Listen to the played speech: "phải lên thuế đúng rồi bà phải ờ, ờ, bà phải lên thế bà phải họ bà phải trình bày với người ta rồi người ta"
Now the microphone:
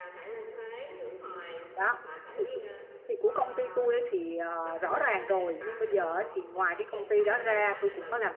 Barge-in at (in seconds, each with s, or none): 1.7 s